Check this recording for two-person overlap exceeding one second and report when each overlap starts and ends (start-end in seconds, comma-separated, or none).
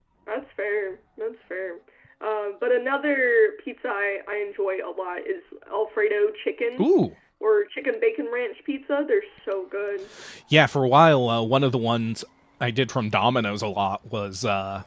none